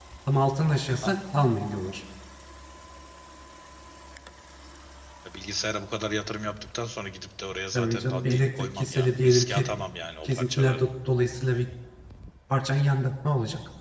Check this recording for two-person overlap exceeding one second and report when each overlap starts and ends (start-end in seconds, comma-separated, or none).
7.7-9.6